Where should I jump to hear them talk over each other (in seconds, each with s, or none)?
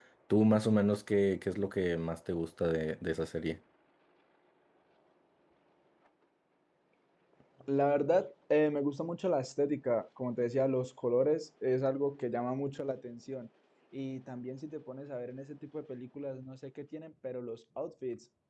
none